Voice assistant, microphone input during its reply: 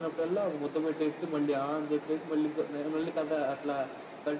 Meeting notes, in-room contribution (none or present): none